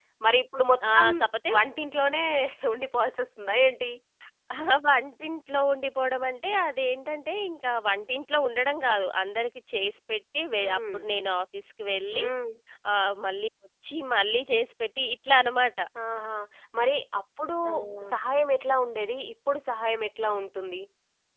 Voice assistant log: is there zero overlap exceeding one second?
Yes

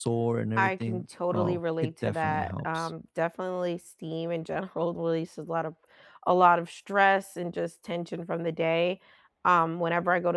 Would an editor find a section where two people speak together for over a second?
Yes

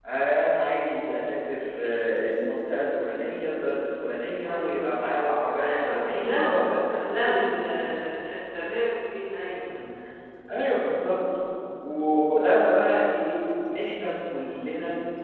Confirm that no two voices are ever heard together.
No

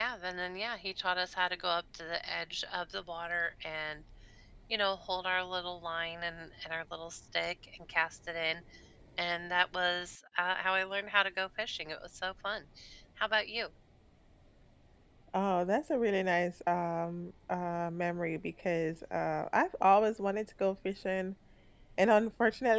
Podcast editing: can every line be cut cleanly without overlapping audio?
Yes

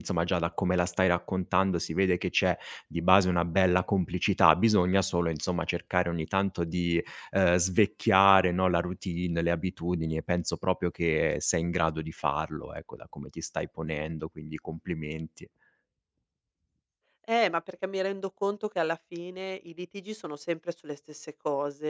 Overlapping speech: No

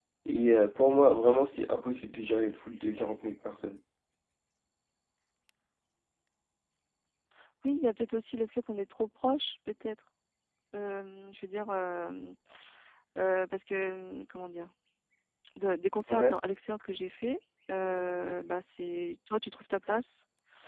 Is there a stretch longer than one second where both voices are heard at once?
No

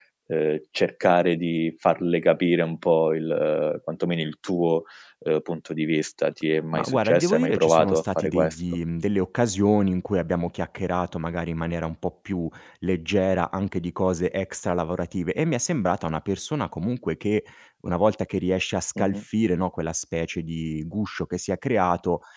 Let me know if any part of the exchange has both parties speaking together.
Yes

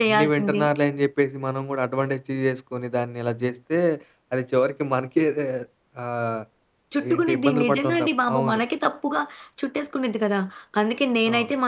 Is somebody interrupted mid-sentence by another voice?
Yes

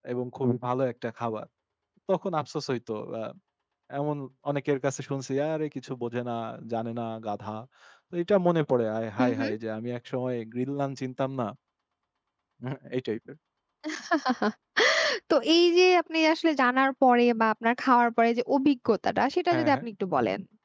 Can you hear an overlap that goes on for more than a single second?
No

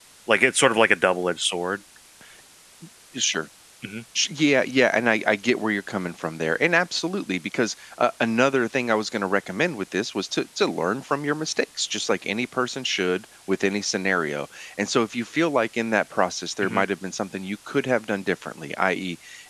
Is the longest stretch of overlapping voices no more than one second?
Yes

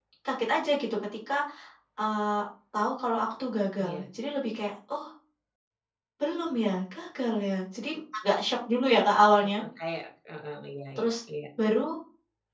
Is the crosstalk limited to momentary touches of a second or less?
Yes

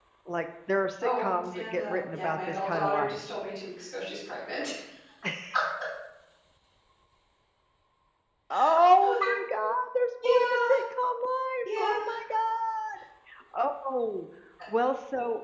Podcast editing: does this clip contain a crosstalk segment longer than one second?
Yes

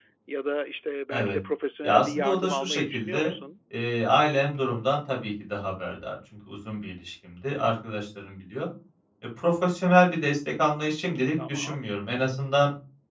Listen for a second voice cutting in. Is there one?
Yes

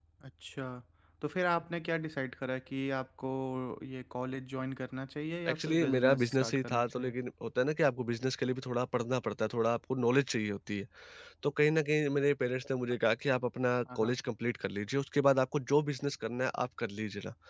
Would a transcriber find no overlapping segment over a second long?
No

